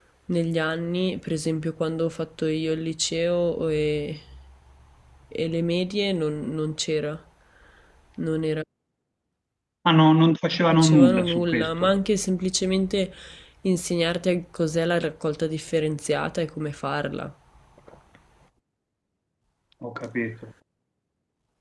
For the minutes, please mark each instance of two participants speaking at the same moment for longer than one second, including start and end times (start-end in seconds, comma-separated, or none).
10.7-11.9